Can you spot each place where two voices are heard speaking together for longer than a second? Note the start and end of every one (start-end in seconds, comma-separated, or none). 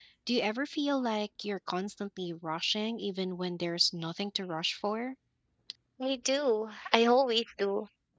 none